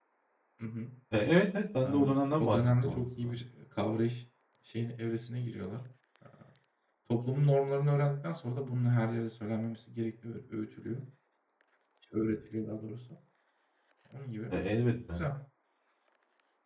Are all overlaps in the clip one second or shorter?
No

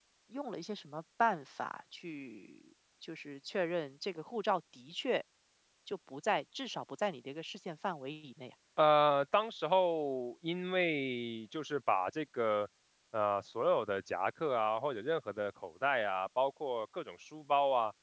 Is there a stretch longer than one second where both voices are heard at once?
No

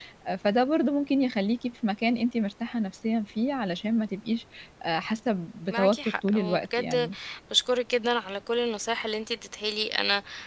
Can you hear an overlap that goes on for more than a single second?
Yes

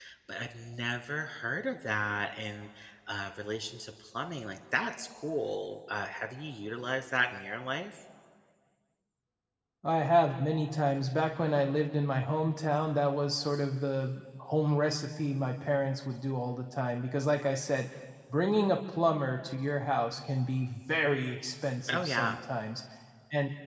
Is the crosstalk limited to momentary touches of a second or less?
Yes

